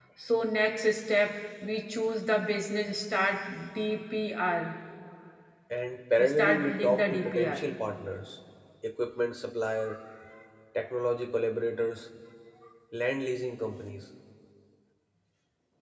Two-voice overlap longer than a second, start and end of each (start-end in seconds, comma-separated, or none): 6.2-7.6